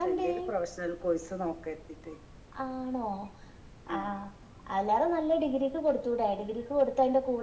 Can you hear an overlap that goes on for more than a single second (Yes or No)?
No